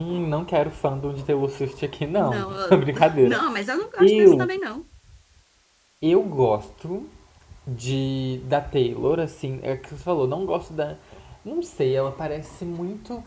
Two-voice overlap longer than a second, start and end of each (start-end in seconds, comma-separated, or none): 2.1-3.4